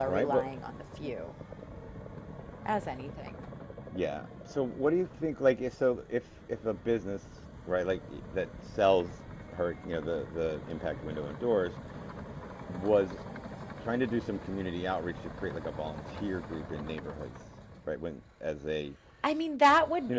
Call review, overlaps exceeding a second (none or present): none